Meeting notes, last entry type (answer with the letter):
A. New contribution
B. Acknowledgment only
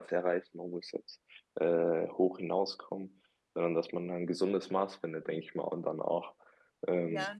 B